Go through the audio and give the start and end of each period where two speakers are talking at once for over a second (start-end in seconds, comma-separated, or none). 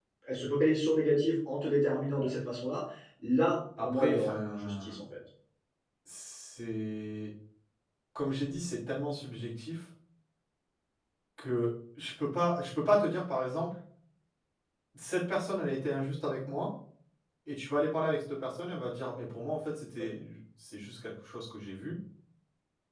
3.8-5.0